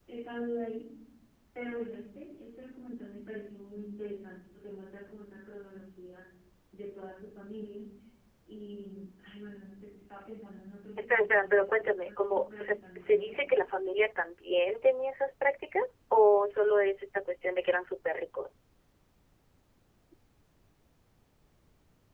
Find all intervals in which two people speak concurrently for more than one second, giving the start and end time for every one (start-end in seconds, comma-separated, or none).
11.1-13.4